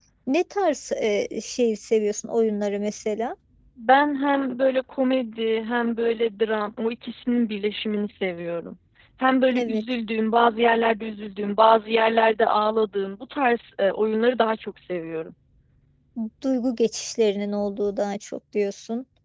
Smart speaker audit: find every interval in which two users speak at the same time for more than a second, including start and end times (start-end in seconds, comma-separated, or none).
none